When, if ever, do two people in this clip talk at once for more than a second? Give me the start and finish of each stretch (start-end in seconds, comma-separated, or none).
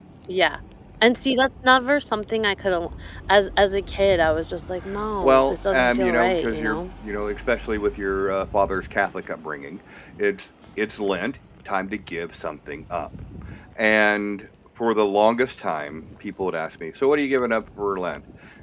5.2-6.8